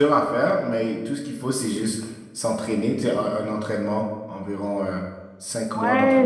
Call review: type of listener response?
taking over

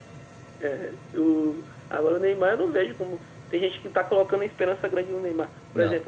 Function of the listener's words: listening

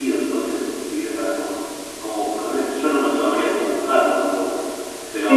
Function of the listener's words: taking over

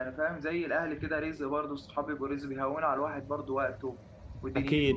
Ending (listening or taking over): taking over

